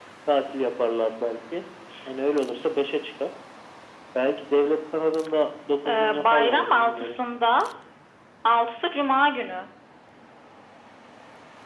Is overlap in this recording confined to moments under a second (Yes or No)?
No